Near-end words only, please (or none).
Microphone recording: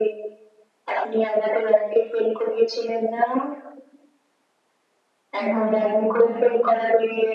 ওনার বউ তো